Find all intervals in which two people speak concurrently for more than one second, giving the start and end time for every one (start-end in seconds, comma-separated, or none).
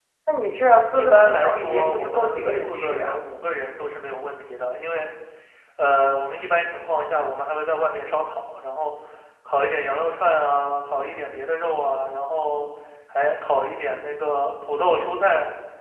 0.9-3.2